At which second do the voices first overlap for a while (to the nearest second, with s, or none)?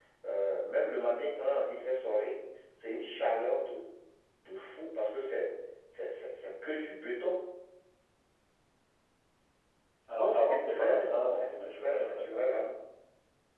10 s